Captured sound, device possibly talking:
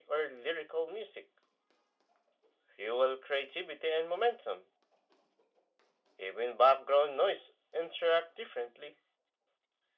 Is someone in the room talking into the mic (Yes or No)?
No